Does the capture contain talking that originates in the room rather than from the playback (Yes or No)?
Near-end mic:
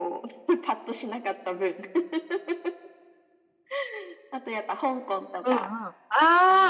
Yes